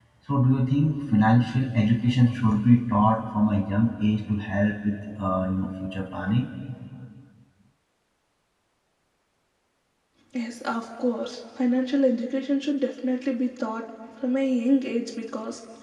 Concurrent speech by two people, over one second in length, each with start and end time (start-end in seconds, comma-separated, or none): none